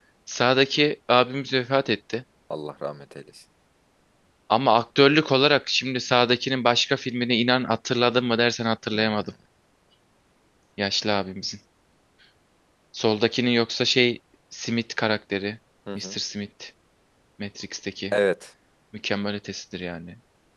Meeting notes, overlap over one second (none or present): none